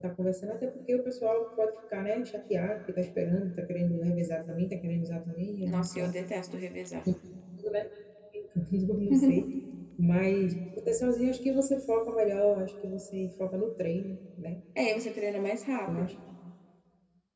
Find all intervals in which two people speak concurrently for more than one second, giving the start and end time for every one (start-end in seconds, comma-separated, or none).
none